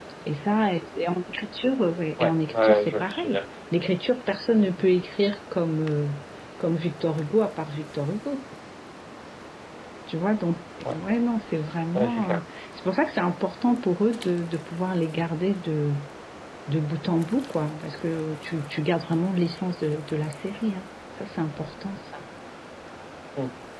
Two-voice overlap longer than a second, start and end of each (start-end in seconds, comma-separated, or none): 2.2-3.4